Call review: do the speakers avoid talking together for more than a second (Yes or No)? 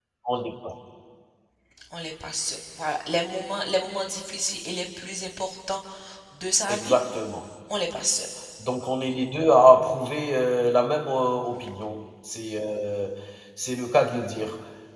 Yes